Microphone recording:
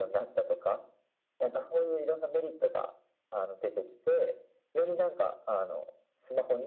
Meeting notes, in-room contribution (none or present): none